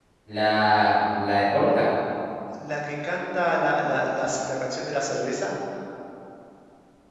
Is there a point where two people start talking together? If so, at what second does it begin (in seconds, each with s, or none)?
none